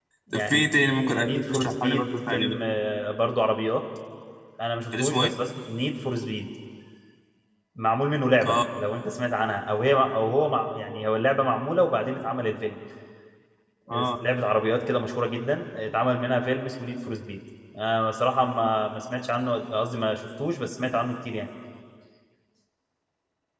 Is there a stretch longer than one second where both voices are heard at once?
Yes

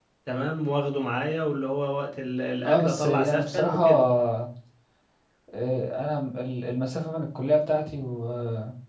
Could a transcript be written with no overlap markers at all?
No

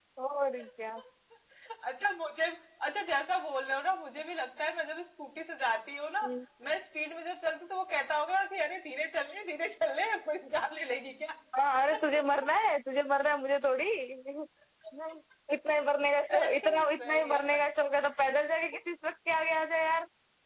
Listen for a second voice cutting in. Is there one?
Yes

